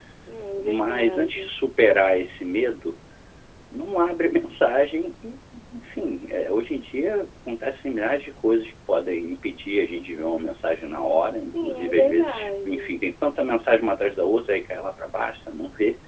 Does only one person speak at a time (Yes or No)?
No